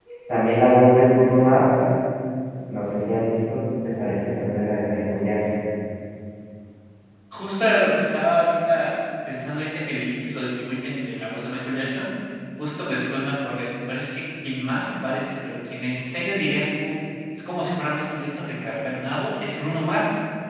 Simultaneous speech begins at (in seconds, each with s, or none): none